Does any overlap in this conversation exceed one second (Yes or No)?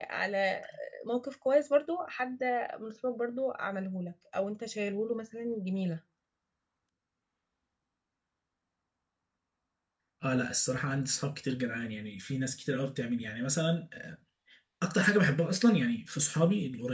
No